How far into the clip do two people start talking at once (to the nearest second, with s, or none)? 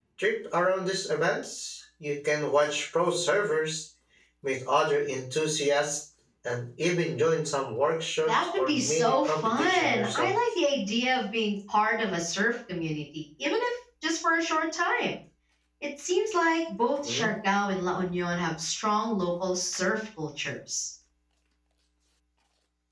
8 s